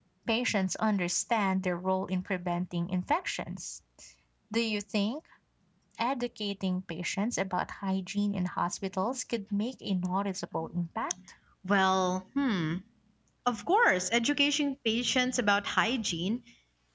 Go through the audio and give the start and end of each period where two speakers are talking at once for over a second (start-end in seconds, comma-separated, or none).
none